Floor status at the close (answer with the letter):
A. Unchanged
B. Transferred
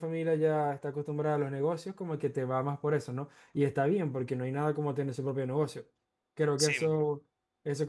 A